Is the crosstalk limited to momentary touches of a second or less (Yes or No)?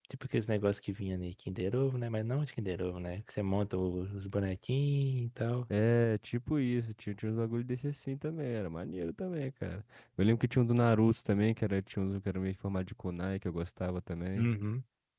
Yes